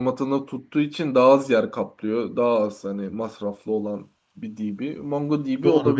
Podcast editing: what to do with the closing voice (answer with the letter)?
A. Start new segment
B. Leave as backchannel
A